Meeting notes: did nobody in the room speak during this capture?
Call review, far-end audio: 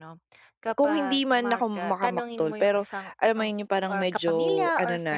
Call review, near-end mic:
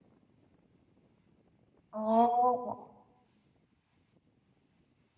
No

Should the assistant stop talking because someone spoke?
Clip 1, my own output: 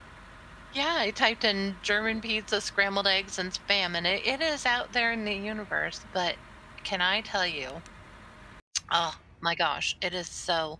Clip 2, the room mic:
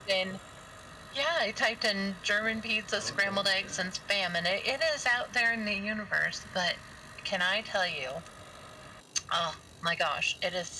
Yes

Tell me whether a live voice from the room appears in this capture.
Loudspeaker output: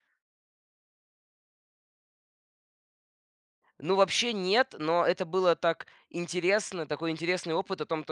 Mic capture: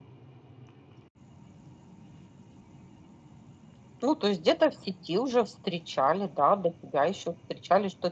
Yes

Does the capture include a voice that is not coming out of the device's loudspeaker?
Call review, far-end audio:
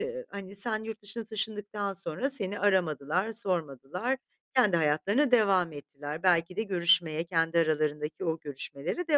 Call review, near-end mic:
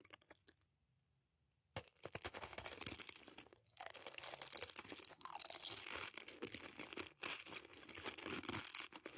No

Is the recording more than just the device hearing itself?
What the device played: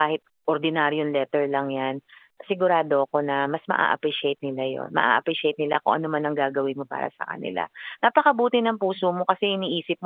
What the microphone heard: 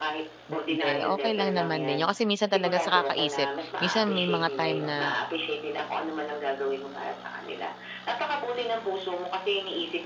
Yes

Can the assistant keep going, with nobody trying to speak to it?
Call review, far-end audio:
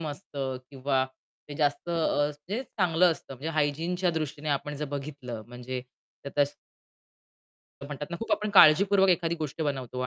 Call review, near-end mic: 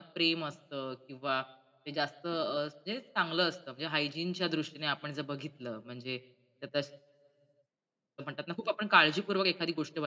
Yes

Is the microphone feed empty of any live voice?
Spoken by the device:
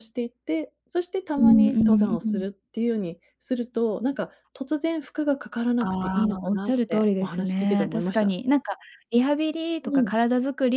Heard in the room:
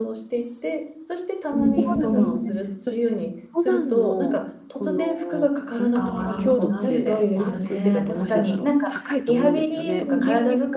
No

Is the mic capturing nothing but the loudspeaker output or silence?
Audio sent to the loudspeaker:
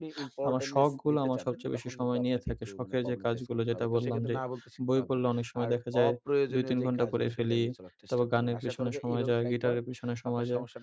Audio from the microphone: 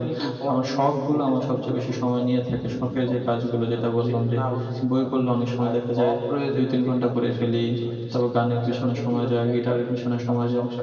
Yes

